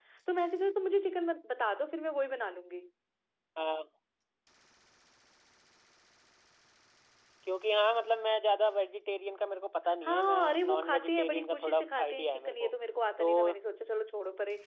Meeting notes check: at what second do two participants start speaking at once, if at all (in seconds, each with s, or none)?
10.0 s